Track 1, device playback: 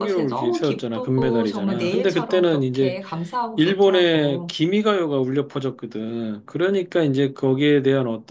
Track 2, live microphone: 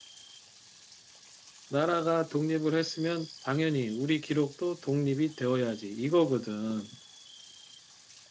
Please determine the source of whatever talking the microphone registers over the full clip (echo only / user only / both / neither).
user only